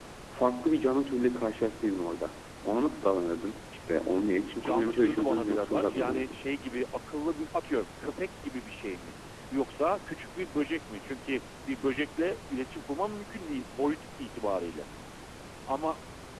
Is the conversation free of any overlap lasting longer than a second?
No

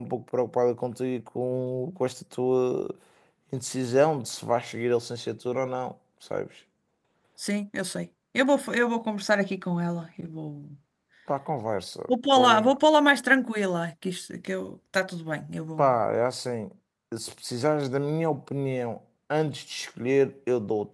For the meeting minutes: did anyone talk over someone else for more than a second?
No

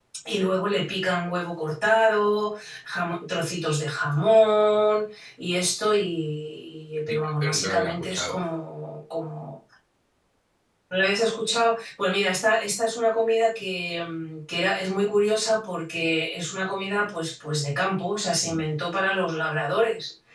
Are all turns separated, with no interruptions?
No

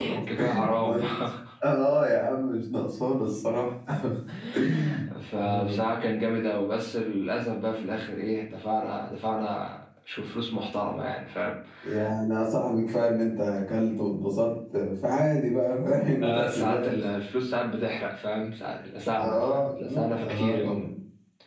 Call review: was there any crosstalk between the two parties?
Yes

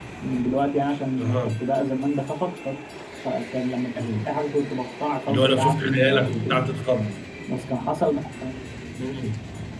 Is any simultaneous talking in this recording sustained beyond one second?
Yes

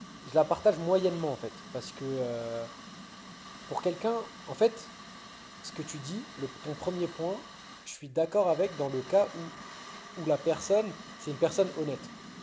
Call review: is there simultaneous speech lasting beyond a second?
No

